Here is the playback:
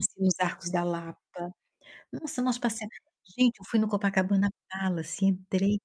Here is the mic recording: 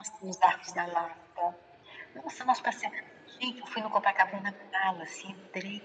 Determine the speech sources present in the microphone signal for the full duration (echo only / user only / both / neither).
echo only